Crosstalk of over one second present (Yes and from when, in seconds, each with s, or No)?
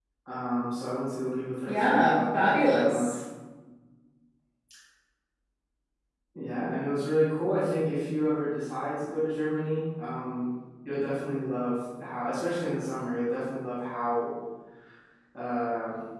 Yes, from 1.7 s